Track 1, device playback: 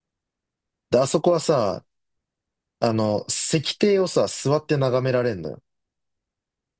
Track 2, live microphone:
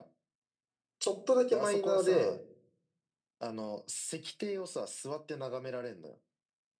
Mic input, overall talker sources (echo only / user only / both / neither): both